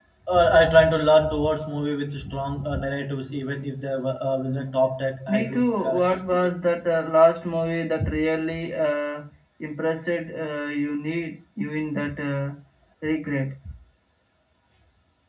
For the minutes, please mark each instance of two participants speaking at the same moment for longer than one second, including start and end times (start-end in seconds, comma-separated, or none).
5.3-6.5